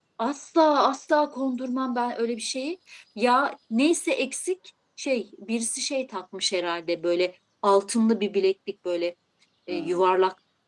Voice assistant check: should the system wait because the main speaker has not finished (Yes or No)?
Yes